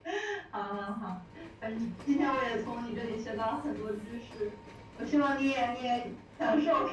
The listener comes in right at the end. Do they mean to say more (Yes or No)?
No